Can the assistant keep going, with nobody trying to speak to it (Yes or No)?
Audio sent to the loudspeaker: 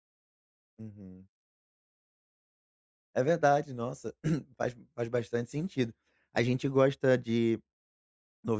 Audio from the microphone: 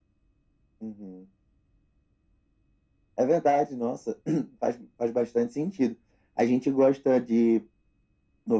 Yes